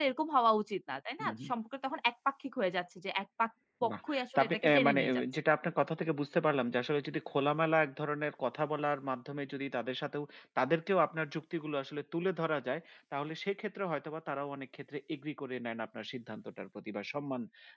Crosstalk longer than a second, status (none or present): present